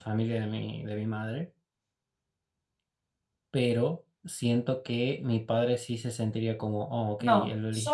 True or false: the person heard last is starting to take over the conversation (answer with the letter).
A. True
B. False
A